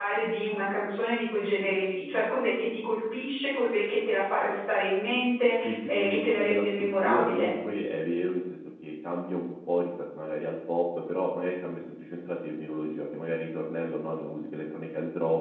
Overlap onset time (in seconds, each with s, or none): 5.6 s